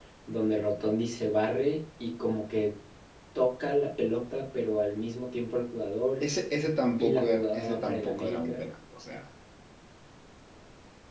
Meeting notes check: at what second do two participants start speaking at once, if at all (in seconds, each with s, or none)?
7.0 s